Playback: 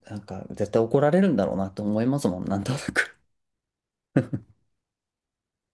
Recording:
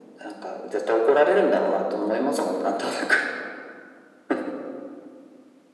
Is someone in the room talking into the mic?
No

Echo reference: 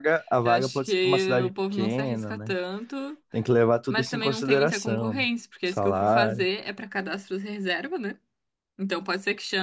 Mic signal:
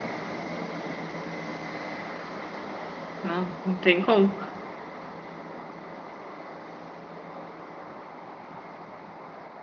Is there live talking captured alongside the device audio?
Yes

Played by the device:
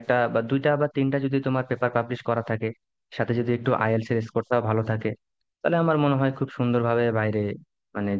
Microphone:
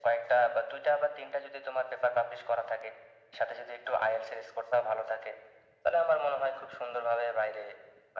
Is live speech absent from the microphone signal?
Yes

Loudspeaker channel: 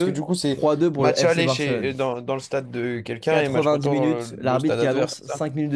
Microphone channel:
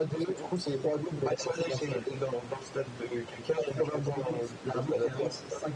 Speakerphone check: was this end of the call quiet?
Yes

